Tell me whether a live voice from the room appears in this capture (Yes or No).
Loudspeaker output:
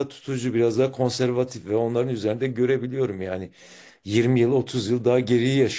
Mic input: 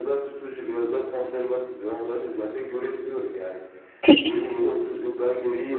Yes